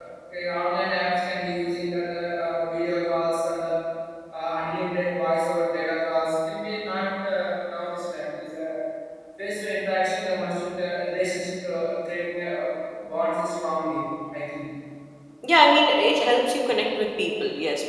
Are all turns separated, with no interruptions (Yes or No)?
Yes